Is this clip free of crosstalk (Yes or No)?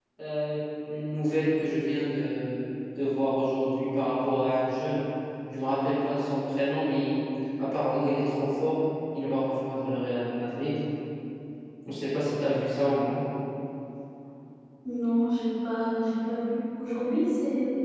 Yes